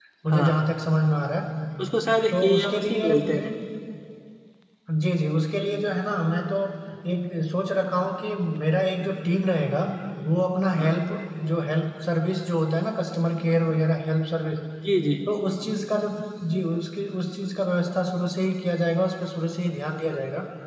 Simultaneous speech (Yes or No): Yes